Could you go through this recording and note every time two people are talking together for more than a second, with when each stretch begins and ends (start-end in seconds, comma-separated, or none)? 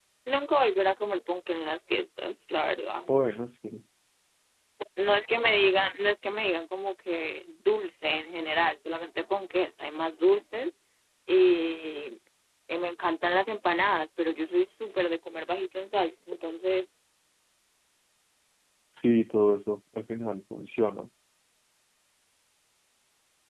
none